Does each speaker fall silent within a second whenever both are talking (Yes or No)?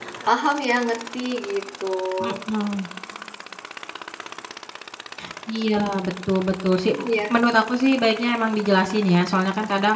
Yes